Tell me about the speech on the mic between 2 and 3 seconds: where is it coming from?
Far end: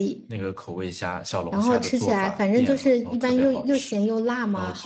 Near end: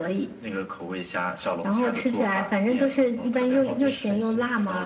echo only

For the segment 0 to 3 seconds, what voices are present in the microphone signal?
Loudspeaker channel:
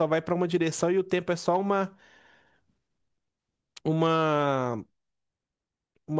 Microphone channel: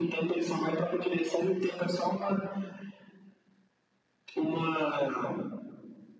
echo only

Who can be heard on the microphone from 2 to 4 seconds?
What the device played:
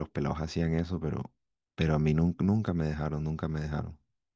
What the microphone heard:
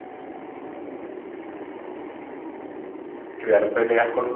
user only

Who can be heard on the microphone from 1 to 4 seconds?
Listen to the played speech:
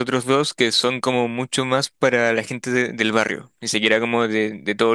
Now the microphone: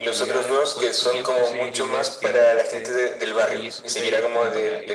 both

